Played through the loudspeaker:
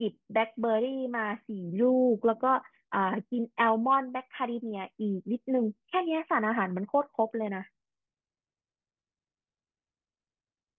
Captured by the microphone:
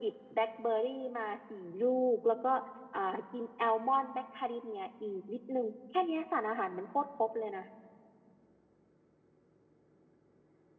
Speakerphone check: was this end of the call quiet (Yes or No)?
Yes